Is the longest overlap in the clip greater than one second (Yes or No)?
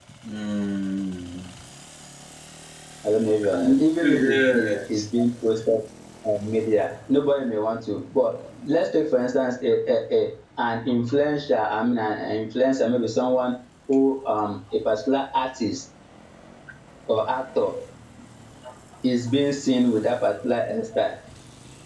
Yes